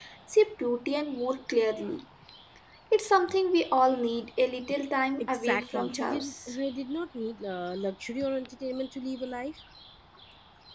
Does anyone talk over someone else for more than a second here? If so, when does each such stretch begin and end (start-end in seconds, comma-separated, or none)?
5.3-6.5